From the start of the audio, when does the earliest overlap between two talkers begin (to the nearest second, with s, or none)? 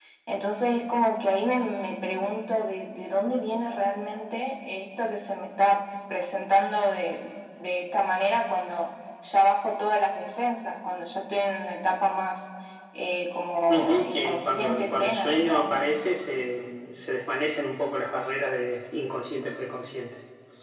14 s